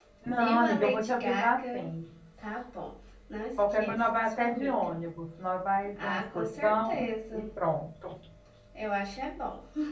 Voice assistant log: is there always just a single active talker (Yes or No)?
No